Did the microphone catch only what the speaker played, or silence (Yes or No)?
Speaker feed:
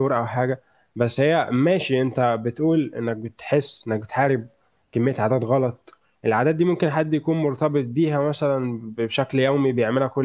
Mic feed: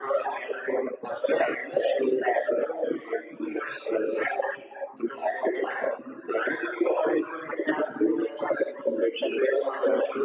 Yes